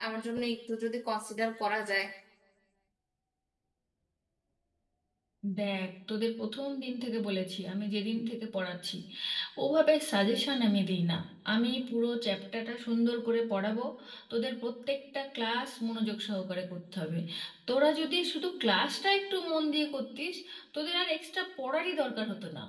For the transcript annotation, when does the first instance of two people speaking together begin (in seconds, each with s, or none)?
none